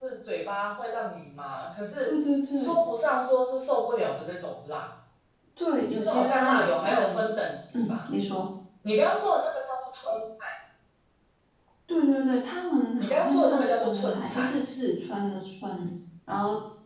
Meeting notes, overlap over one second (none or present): present